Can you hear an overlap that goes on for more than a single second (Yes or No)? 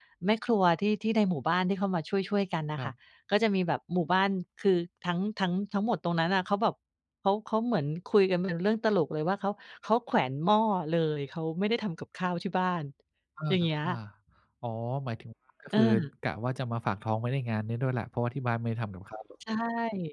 No